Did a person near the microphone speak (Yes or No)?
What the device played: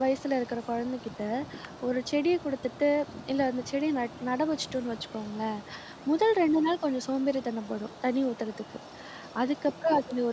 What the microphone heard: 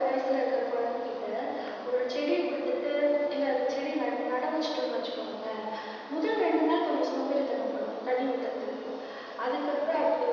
No